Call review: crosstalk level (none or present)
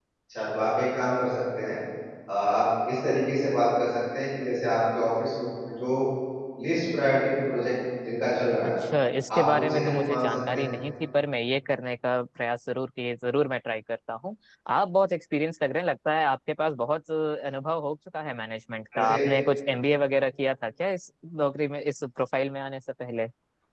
present